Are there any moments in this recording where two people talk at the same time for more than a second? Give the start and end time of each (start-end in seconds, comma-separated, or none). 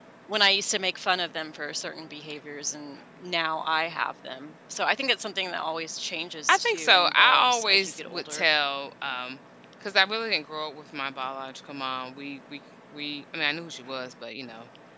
6.5-8.5